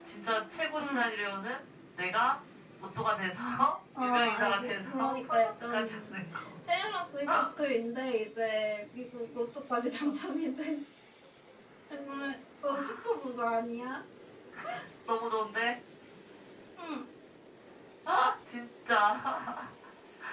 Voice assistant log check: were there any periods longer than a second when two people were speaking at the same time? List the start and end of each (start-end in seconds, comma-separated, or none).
4.0-6.1